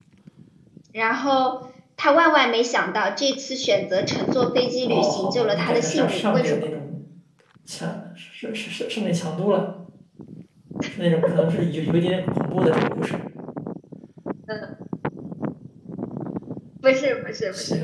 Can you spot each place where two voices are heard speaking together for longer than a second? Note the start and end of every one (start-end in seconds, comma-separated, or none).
4.9-6.6